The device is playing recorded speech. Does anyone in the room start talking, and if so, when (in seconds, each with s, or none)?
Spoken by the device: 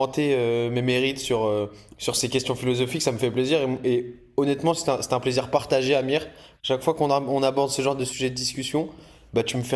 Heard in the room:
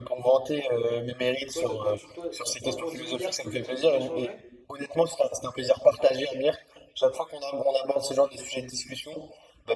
1.5 s